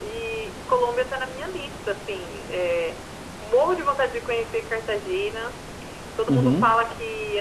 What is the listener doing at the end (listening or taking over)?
listening